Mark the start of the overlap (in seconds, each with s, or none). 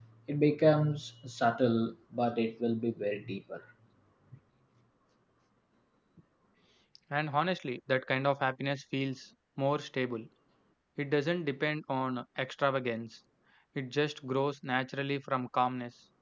none